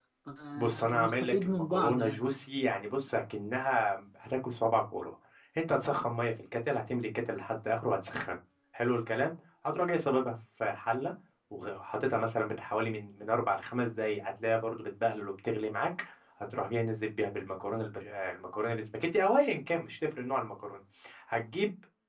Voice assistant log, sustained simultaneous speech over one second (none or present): present